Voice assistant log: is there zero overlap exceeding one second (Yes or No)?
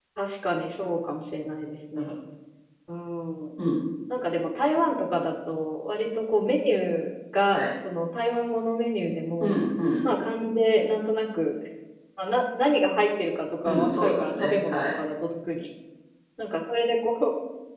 No